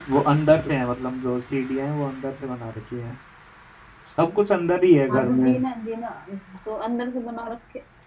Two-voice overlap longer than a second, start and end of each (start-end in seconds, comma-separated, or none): none